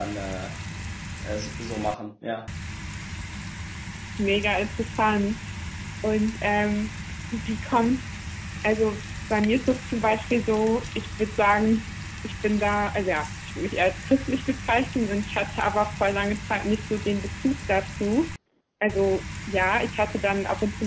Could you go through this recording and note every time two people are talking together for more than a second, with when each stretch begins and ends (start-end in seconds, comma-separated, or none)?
none